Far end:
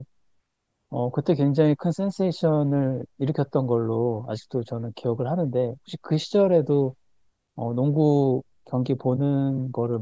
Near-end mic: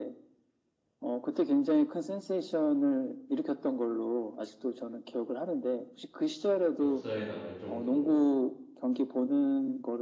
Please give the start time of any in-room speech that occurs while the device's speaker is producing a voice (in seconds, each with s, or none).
6.8 s